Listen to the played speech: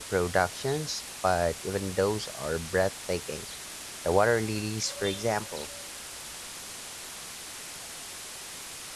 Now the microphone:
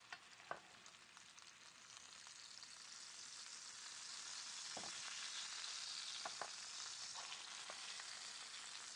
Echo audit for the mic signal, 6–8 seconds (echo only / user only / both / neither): neither